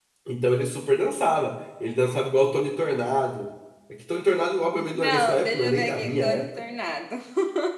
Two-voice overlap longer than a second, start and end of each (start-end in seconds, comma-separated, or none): 4.9-6.5